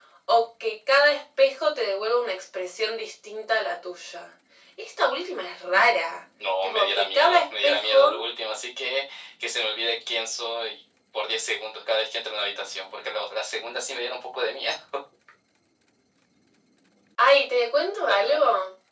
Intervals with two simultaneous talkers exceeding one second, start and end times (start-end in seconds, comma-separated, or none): 6.6-8.0